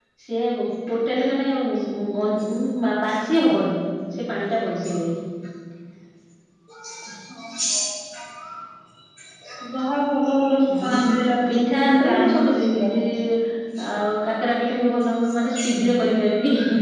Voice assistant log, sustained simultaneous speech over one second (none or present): present